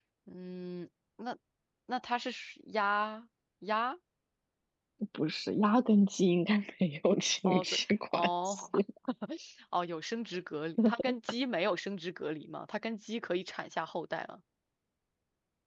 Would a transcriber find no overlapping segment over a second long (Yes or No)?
No